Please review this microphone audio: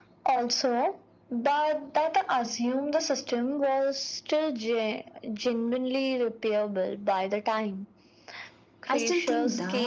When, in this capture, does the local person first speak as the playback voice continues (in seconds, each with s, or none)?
8.9 s